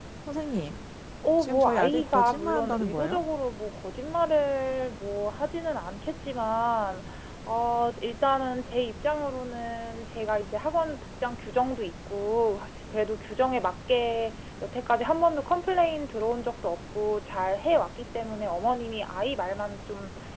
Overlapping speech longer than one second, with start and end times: 1.4-3.2

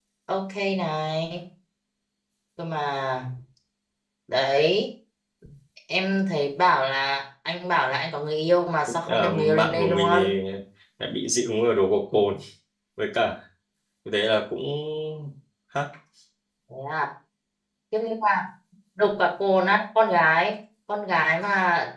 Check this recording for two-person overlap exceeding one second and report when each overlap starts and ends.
9.1-10.4

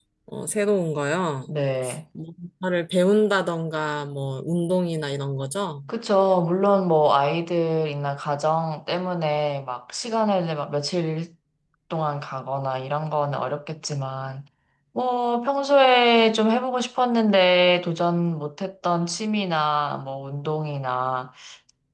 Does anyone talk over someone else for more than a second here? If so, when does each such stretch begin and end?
none

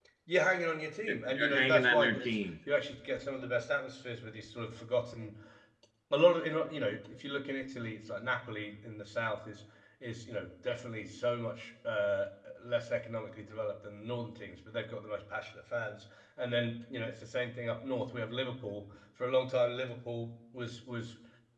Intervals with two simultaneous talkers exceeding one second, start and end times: 1.1-2.4

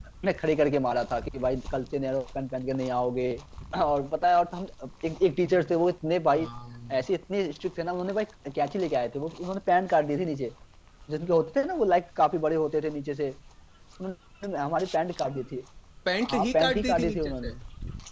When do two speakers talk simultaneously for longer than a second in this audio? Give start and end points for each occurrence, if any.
16.3-17.5

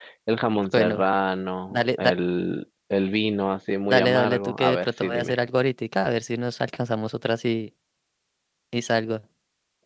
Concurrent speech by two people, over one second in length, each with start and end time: 3.9-5.3

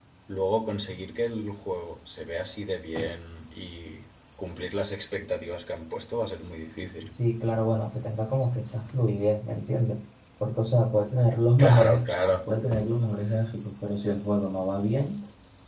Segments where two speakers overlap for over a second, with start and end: none

